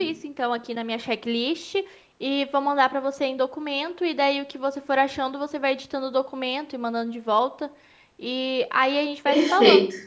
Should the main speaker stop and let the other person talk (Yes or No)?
Yes